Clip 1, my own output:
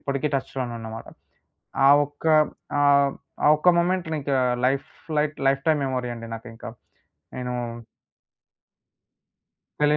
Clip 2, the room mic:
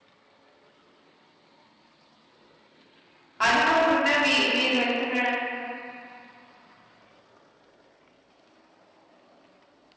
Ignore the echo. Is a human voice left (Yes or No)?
Yes